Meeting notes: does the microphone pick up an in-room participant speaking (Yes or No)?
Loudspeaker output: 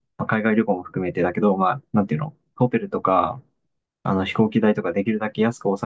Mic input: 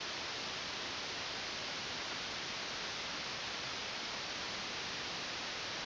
No